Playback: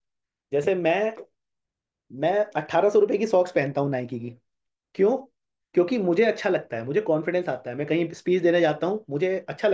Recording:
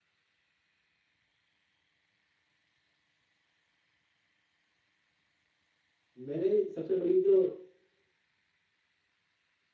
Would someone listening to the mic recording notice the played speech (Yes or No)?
No